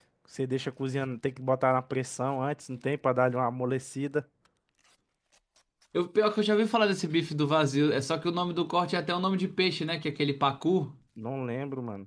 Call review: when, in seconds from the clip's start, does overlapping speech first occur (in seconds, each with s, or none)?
none